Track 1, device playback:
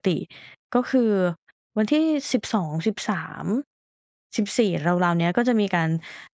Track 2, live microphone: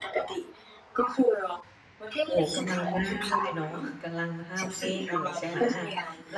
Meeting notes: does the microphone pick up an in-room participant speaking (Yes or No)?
Yes